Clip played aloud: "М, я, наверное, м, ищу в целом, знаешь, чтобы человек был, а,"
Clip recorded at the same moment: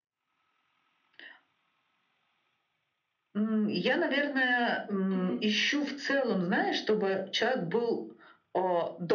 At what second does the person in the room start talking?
5 s

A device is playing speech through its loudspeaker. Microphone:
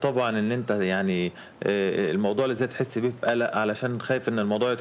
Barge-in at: none

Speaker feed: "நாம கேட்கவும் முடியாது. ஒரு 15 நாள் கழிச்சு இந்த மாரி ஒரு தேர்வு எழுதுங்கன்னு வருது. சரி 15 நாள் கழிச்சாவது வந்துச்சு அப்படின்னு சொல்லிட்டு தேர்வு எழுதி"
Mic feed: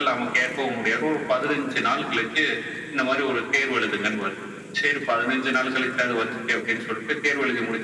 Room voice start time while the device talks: none

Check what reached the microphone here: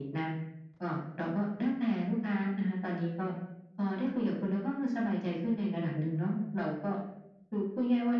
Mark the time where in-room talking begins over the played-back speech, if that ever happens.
none

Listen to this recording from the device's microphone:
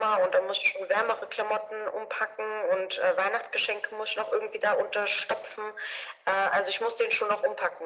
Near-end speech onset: none

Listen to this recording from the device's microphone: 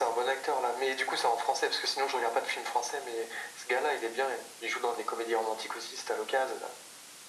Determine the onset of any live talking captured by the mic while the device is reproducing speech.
none

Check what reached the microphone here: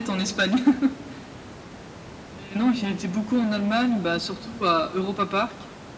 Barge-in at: none

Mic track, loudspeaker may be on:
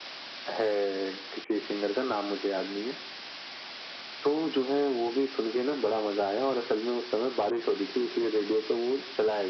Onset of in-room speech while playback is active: none

